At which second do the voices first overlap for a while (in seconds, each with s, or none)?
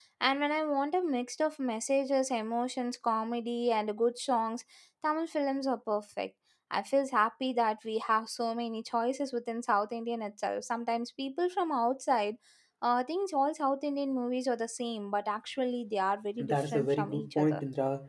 16.4 s